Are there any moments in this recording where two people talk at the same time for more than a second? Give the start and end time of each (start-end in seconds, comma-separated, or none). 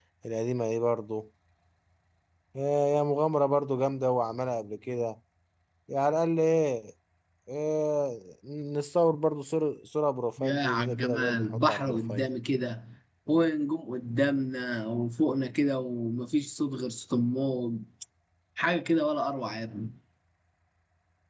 10.4-12.3